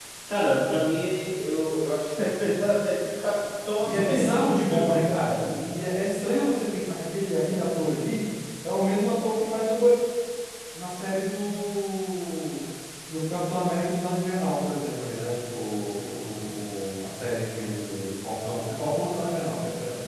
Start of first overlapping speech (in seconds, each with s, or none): 3.8 s